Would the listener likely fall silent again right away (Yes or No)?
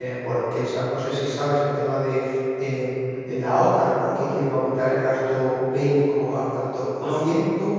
Yes